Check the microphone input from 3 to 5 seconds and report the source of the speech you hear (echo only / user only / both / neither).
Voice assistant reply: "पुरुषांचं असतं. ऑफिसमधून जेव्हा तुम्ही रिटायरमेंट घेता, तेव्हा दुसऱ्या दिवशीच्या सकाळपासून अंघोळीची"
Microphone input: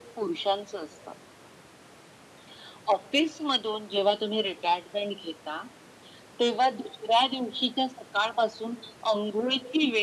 echo only